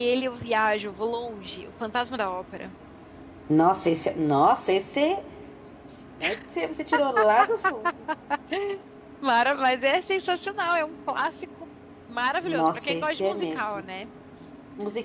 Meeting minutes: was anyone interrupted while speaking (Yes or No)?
Yes